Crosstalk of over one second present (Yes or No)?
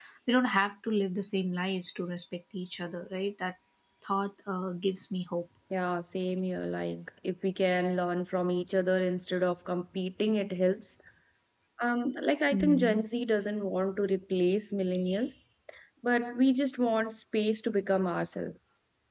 No